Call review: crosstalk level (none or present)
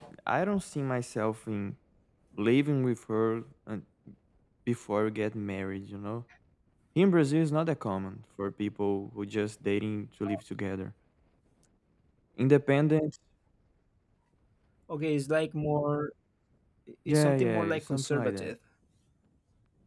present